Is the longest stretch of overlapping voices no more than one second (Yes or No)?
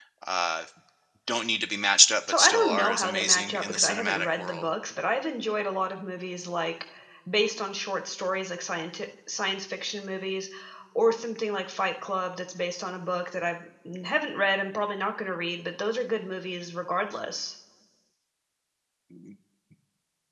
No